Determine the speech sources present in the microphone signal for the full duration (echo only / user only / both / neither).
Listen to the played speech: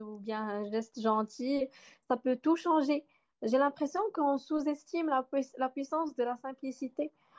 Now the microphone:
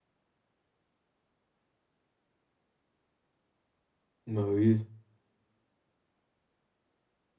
user only